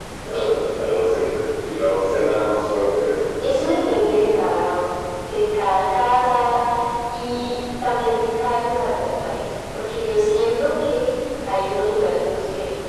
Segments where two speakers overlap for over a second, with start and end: none

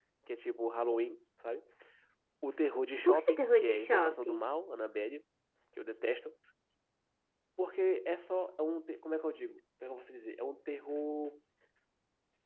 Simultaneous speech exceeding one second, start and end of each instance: 3.0-4.5

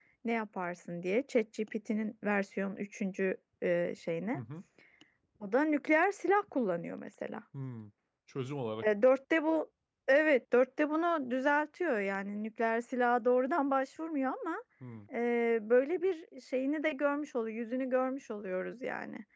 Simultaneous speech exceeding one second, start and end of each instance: none

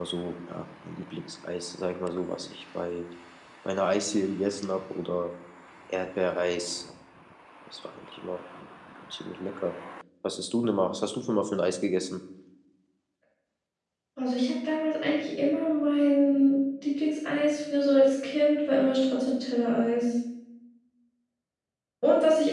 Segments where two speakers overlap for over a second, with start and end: none

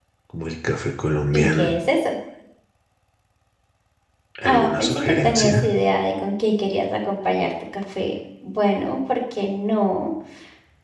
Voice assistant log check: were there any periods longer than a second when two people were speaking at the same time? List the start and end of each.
4.4-5.7

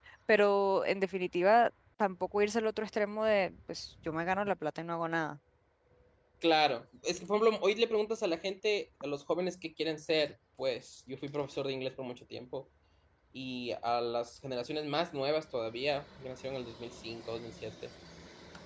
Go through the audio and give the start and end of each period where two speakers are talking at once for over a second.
none

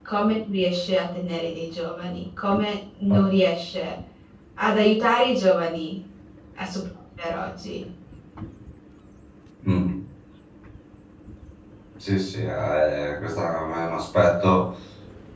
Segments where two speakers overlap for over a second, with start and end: none

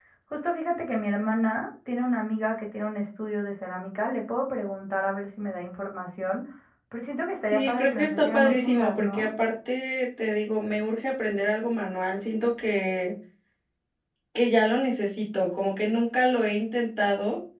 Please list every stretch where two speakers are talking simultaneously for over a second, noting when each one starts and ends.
7.5-9.3

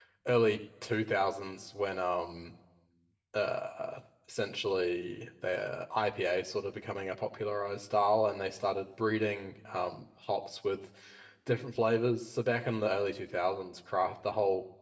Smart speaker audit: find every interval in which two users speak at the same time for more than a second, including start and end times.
none

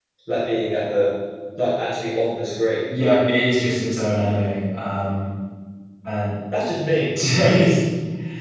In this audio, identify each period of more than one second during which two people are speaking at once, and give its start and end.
none

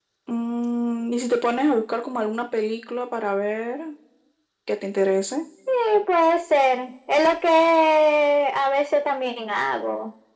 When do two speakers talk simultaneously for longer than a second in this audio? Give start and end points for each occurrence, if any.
none

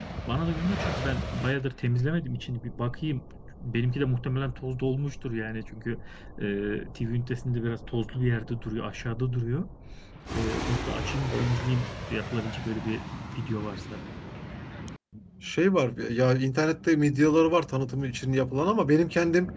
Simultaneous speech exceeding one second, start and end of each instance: none

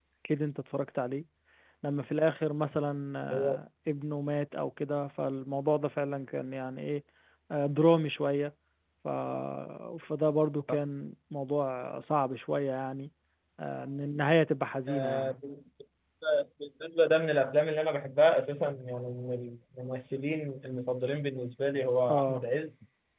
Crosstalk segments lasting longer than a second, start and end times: none

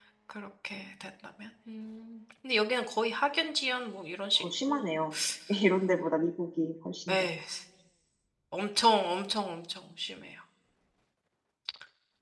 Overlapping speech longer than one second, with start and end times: none

